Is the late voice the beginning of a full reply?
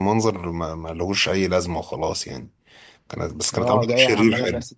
Yes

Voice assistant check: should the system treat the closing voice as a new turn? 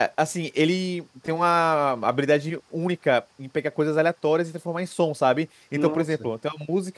No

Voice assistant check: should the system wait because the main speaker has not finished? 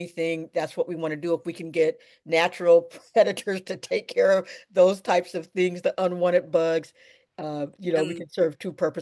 Yes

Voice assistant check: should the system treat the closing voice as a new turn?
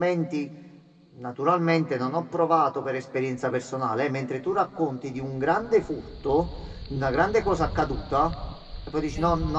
No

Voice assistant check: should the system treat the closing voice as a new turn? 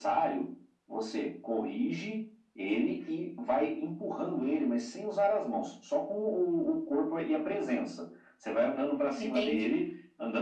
No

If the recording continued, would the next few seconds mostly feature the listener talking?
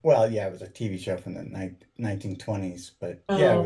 No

